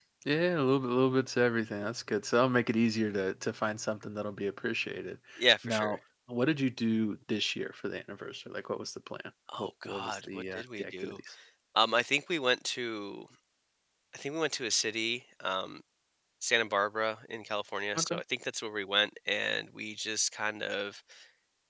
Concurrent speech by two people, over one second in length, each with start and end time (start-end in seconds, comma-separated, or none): 9.6-11.1